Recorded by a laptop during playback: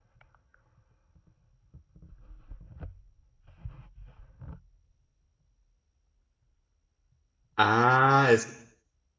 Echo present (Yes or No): No